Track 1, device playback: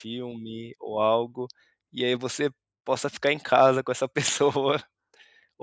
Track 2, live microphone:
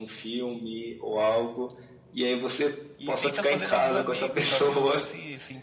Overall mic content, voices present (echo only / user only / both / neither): both